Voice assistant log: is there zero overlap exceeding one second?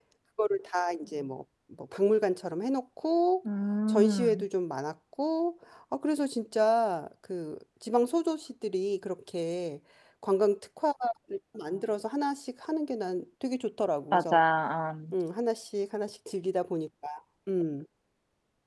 Yes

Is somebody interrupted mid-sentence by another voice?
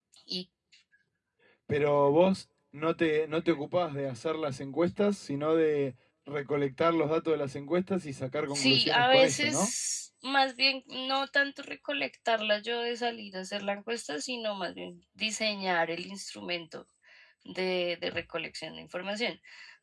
Yes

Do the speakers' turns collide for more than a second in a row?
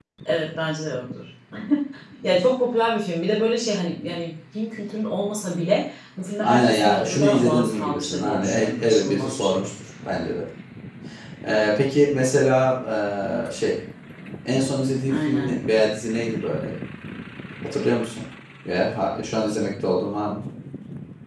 Yes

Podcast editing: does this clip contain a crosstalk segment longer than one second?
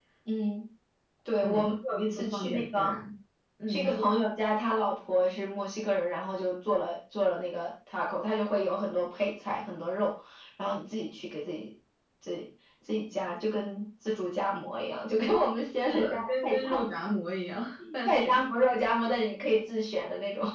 Yes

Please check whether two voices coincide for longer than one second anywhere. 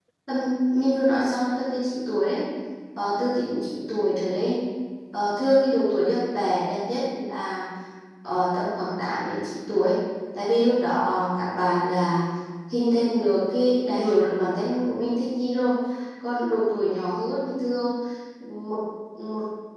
No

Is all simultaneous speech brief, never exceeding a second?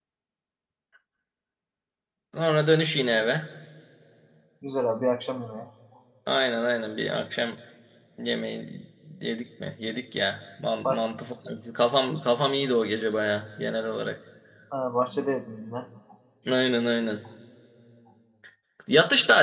Yes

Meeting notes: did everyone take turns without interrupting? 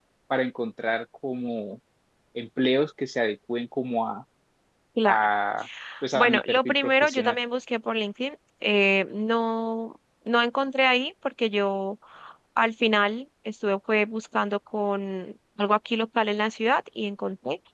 No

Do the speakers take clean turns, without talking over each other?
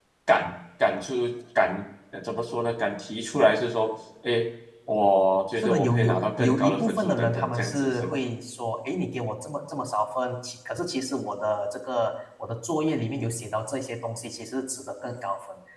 No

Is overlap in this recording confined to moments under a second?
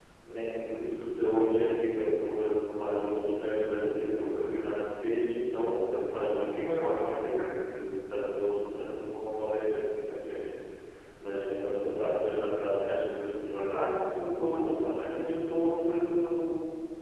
No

